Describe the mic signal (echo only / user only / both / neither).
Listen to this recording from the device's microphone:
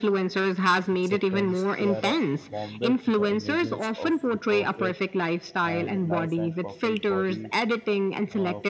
both